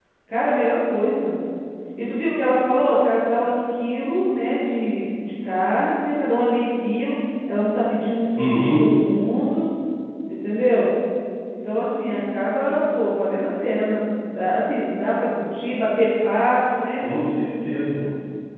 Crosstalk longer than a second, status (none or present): none